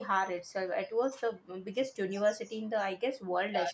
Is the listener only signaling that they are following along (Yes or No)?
No